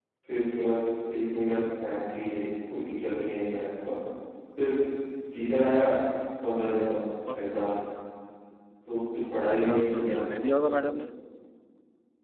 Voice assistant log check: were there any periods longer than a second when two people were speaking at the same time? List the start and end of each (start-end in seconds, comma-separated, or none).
9.4-10.9